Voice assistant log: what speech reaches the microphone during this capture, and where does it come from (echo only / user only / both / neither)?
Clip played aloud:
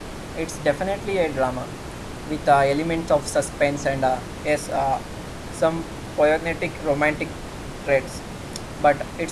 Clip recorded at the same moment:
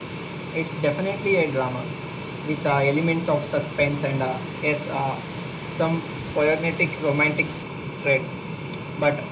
echo only